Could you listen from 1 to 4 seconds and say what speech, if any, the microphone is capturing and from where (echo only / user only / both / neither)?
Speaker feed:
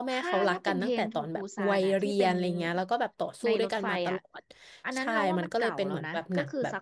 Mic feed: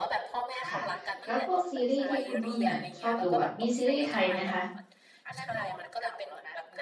both